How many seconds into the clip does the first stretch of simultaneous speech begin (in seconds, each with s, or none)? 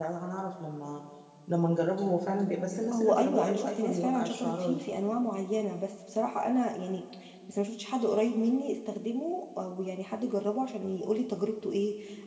2.9 s